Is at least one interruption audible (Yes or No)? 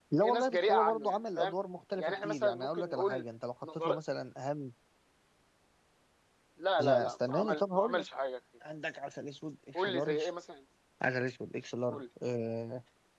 Yes